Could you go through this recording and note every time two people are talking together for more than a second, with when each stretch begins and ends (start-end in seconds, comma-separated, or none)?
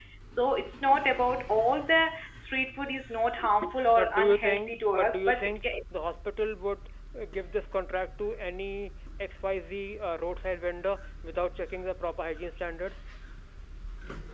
3.9-5.6